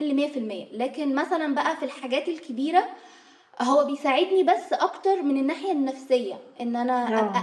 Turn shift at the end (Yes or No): No